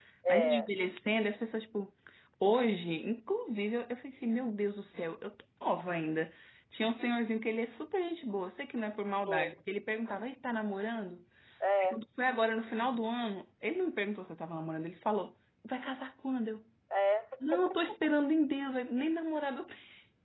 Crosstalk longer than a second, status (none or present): none